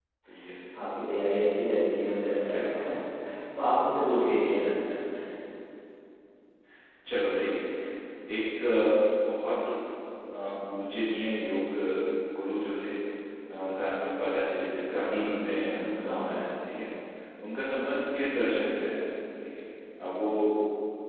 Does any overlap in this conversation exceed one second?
Yes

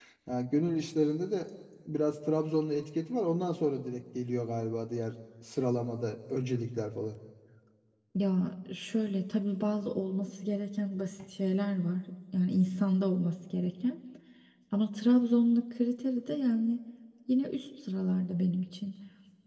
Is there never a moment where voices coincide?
Yes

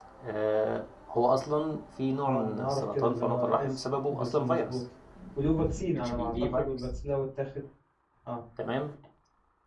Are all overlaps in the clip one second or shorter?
No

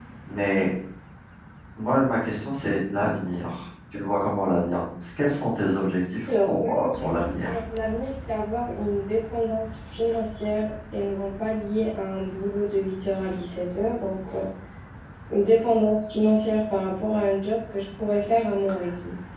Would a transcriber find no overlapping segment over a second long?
No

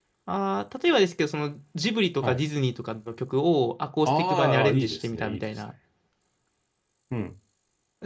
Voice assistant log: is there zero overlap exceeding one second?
No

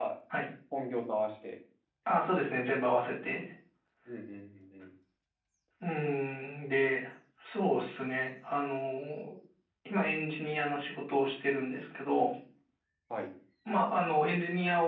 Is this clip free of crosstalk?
Yes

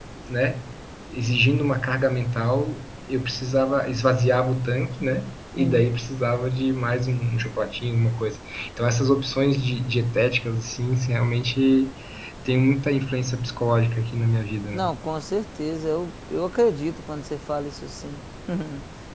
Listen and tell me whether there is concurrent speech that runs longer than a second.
No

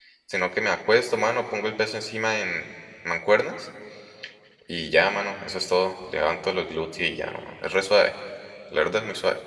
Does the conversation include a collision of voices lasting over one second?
No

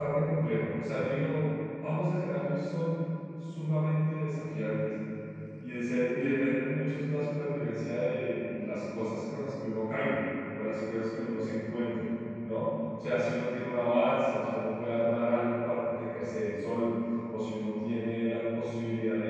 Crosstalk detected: No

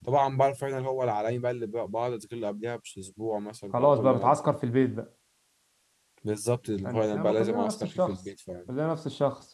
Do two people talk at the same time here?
Yes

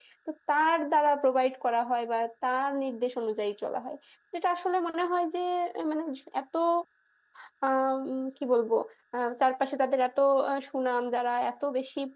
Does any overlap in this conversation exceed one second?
No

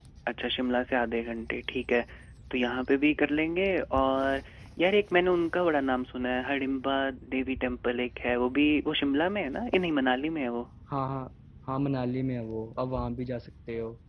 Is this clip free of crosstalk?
Yes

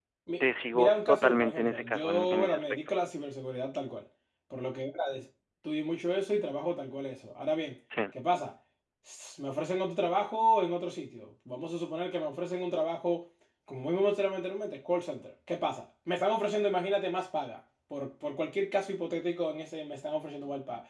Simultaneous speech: Yes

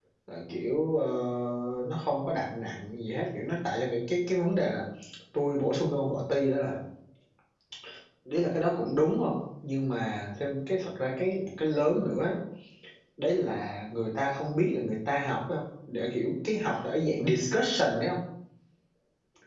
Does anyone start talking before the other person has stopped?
No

